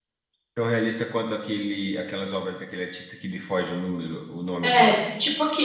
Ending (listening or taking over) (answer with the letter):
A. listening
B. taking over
B